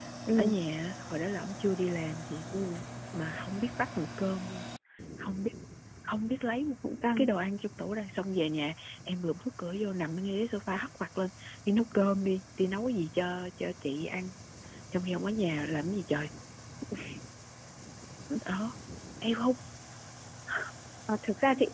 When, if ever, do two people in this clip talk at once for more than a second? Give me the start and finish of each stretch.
none

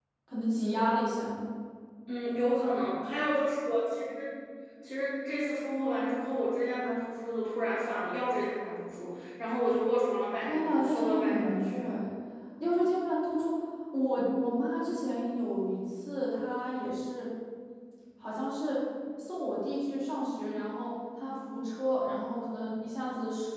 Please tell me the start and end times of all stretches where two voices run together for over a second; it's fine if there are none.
10.4-11.9

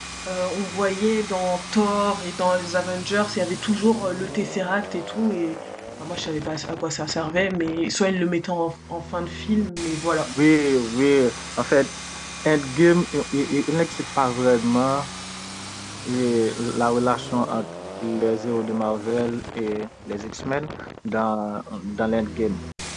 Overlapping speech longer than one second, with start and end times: none

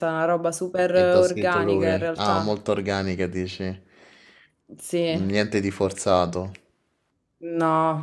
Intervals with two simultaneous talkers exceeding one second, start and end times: 0.9-2.5

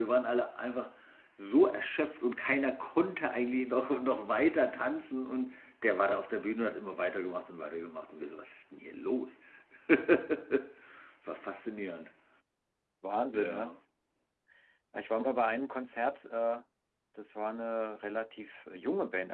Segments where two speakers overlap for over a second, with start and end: none

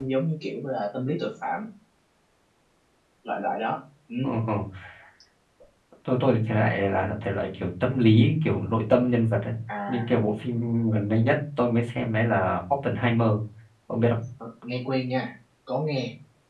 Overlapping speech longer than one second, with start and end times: none

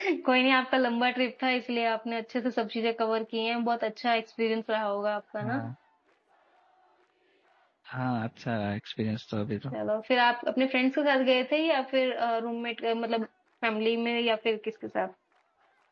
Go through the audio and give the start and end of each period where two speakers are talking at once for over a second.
none

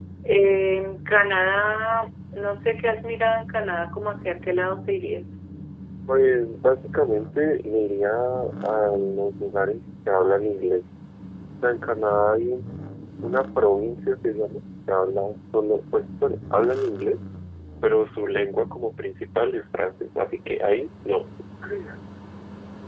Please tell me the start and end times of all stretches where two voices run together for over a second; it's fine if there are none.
none

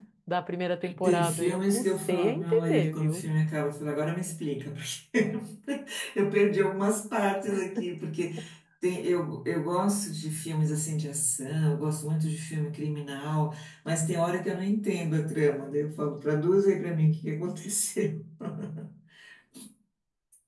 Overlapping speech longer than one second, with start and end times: 1.0-3.2

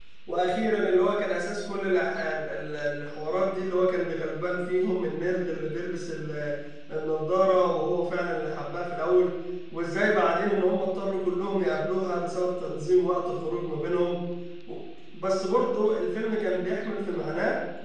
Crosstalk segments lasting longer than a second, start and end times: none

